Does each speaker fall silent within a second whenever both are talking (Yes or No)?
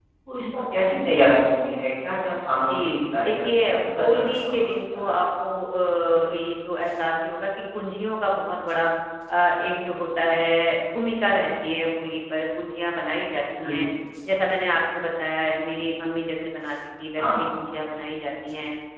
No